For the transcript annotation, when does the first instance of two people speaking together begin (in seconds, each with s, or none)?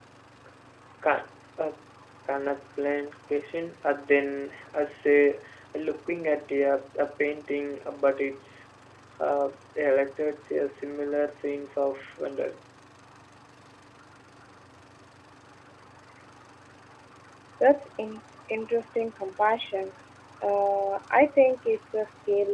none